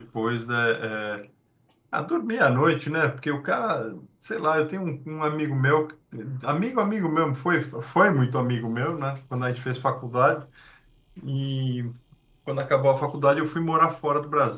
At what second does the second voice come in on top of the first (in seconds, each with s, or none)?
none